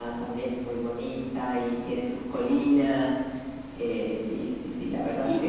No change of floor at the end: No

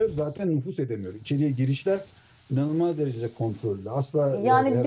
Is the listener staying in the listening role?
No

